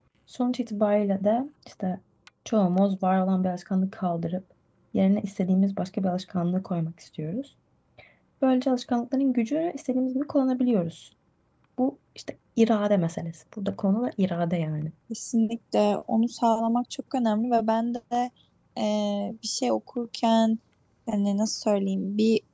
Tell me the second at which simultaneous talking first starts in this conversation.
none

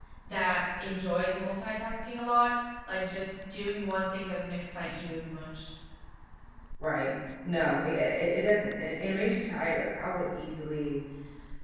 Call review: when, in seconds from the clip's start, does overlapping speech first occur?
none

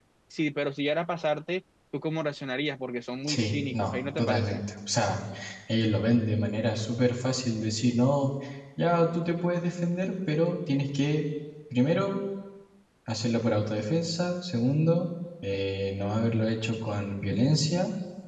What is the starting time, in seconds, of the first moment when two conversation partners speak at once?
3.3 s

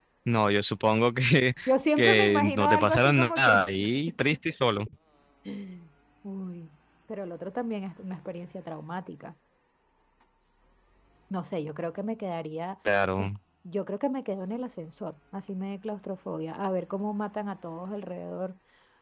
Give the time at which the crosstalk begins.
2.0 s

